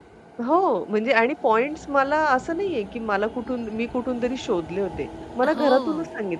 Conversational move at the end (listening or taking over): listening